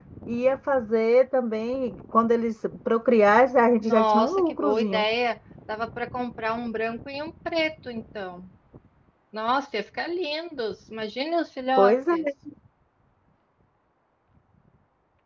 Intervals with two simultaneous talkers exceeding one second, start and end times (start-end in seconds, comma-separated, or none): 3.8-5.0